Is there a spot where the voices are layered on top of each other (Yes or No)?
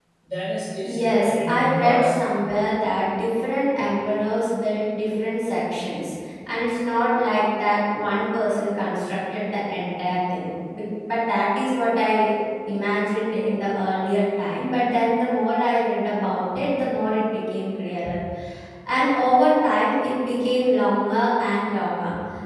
Yes